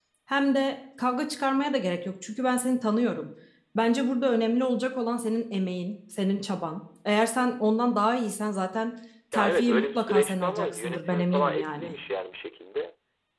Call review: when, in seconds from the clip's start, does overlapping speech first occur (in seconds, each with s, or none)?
9.3 s